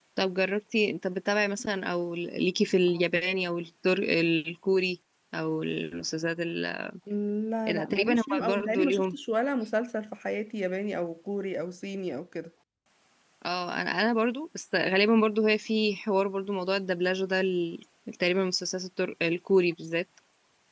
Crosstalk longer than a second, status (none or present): present